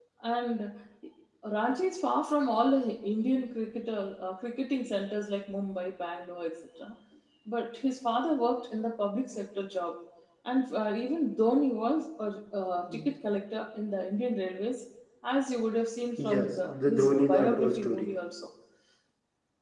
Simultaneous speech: Yes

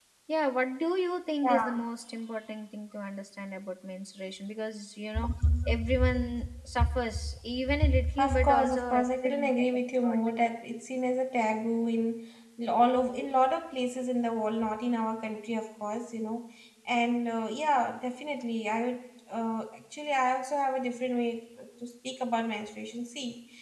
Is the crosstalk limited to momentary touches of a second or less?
No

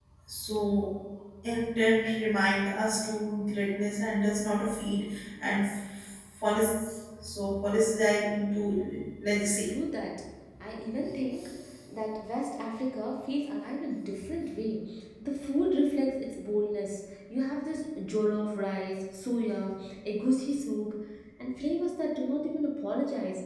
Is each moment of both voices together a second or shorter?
Yes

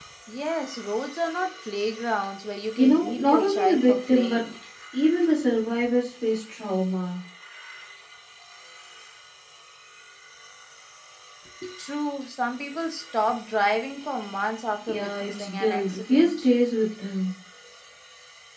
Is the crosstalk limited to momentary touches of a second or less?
No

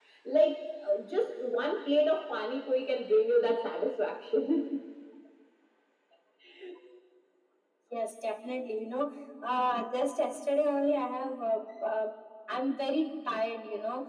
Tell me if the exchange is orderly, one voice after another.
Yes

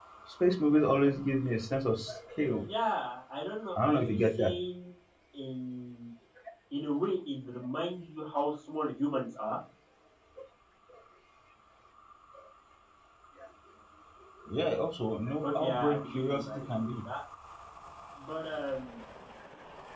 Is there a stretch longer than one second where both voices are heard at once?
Yes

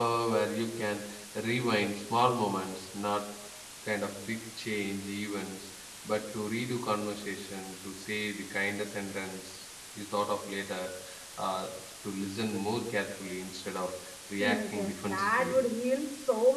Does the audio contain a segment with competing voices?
Yes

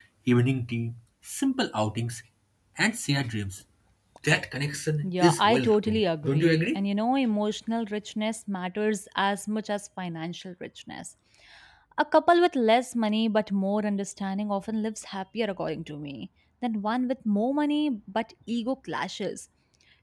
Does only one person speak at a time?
No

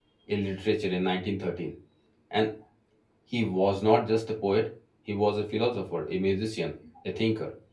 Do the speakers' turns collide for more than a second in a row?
No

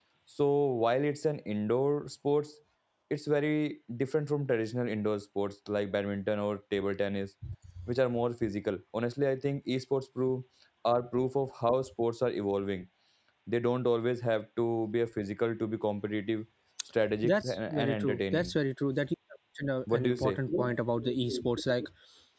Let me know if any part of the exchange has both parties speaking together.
Yes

